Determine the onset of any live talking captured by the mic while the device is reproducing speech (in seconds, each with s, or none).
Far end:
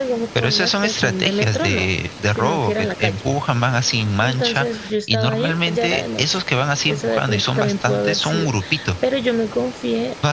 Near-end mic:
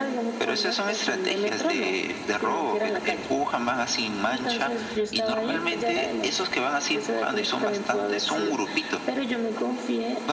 none